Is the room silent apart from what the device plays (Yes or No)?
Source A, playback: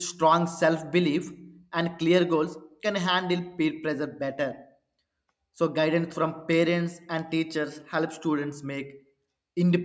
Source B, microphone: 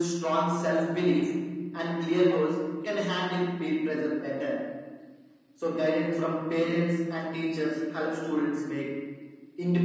Yes